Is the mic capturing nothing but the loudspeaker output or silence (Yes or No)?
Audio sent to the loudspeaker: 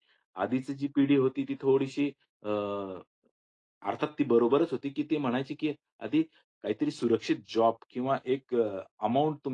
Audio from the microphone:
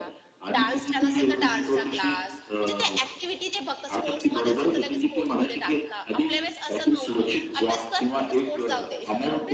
No